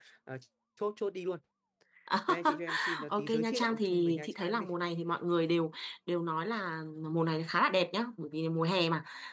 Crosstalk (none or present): present